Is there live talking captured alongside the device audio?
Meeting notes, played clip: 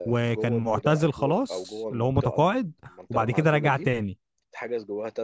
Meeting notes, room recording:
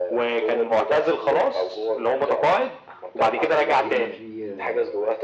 Yes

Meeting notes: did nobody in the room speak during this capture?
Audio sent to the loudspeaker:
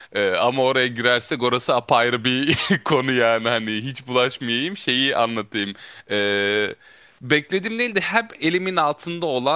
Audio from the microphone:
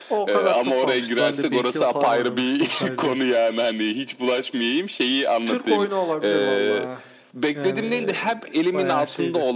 No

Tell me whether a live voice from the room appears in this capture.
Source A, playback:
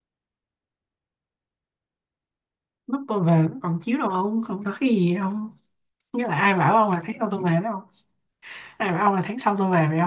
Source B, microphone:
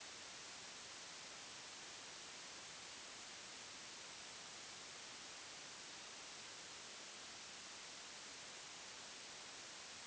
No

